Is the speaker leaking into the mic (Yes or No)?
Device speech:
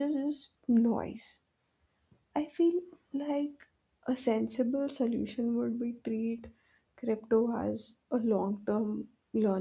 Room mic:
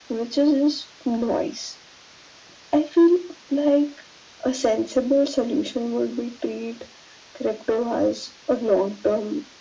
Yes